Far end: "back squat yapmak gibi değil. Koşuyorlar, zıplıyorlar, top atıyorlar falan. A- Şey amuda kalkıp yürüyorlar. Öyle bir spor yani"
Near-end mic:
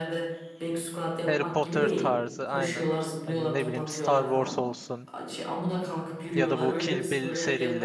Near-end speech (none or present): present